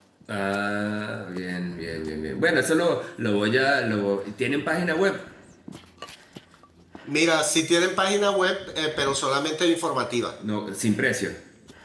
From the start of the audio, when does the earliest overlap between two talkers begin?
none

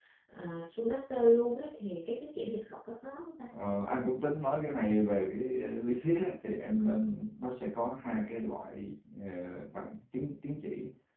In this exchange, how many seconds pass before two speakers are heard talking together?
none

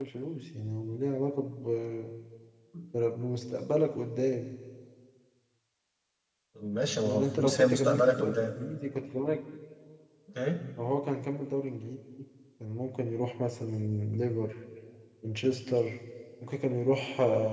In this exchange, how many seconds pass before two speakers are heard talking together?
7.0 s

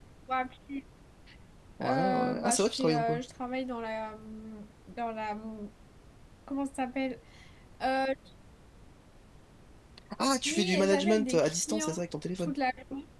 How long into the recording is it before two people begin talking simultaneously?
1.8 s

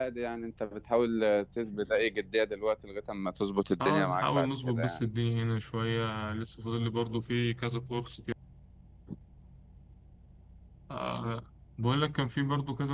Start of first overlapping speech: 3.8 s

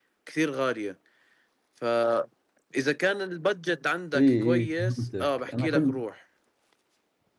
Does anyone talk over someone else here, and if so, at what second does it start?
4.1 s

